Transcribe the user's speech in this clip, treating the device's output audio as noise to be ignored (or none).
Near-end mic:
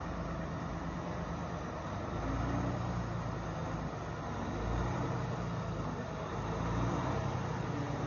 none